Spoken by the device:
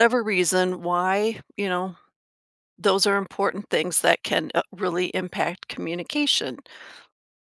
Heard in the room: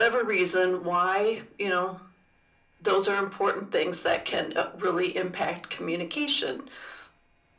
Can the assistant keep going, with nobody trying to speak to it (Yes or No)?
Yes